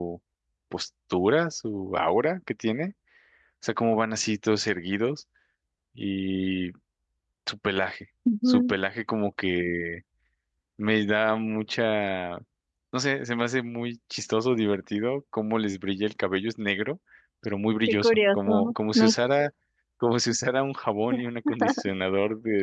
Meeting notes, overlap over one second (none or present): present